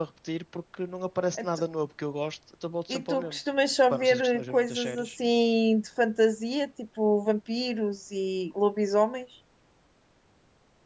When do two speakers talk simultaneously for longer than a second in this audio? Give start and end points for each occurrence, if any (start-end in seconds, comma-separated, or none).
3.9-5.1